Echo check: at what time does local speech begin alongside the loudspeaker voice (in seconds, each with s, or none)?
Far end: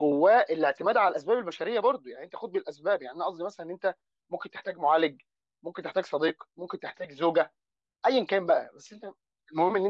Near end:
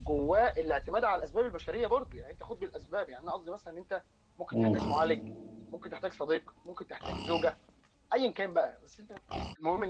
4.5 s